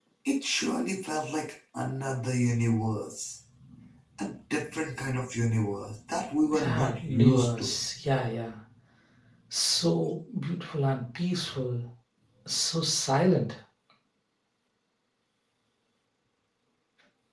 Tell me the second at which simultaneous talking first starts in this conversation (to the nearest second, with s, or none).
7 s